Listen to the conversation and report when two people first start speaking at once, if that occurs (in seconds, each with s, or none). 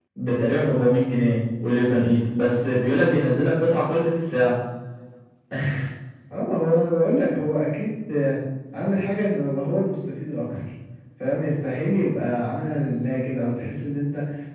none